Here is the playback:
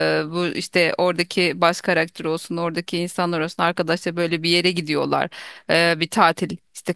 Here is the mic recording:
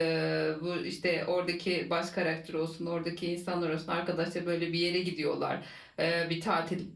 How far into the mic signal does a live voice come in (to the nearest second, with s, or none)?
none